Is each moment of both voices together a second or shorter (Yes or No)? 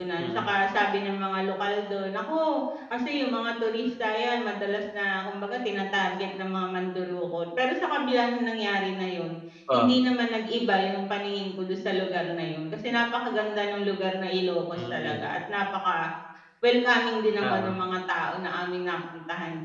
Yes